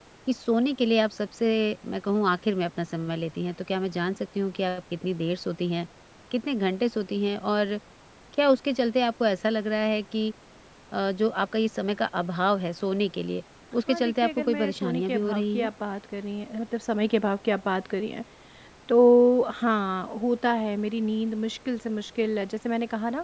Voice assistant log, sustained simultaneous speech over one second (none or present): present